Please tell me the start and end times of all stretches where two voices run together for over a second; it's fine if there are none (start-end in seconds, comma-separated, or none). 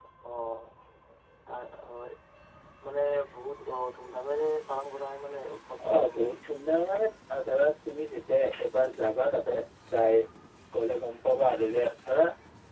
none